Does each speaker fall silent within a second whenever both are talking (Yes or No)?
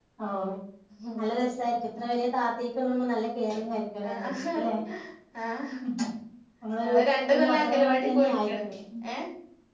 No